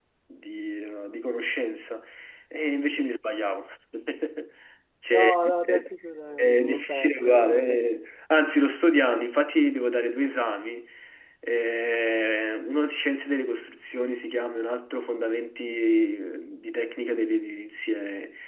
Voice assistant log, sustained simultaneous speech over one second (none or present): present